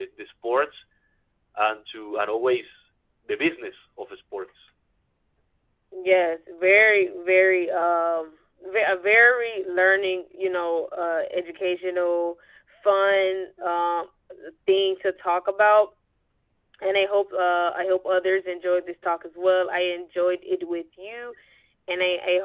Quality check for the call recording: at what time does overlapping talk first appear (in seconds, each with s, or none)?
none